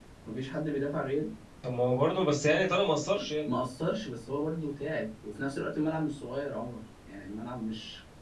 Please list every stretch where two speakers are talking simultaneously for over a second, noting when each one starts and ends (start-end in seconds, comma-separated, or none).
none